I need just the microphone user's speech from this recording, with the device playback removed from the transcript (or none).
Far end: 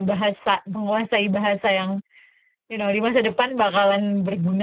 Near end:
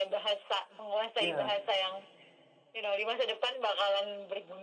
ya.